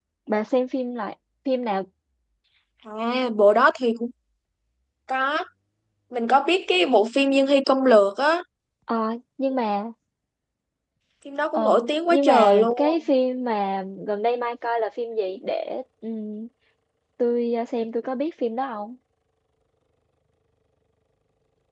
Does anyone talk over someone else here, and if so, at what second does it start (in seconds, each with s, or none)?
11.5 s